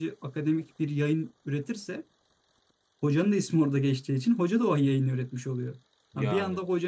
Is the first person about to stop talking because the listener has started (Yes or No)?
No